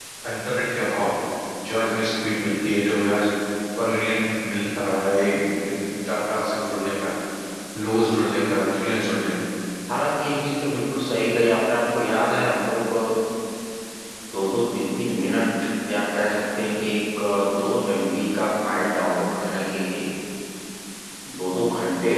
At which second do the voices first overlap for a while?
none

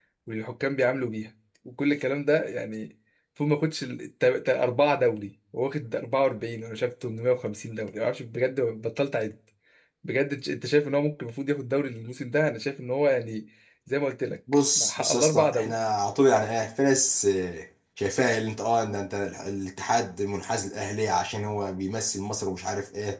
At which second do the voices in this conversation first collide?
14.5 s

